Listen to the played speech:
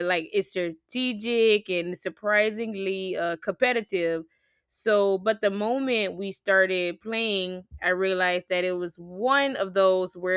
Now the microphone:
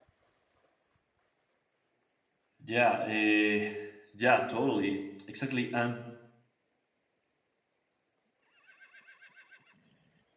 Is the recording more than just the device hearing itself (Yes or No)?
Yes